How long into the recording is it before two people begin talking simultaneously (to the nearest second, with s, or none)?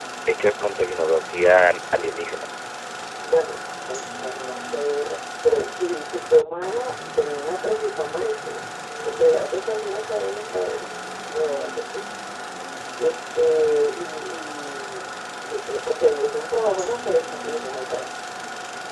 none